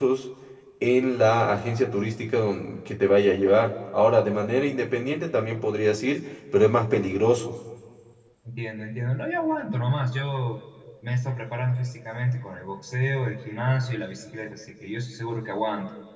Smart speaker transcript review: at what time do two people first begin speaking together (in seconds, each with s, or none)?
none